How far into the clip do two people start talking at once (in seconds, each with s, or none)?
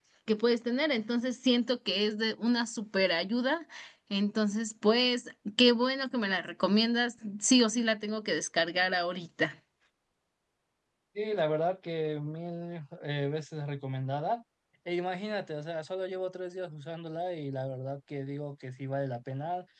none